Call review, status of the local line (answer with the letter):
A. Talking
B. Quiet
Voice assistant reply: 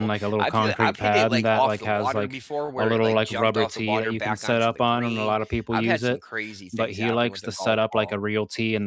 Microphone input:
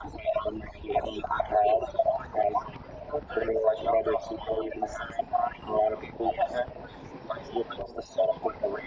B